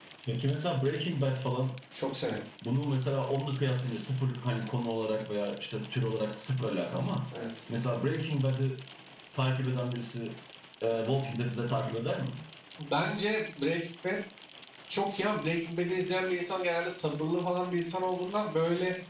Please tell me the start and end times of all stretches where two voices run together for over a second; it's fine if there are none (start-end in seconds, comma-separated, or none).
none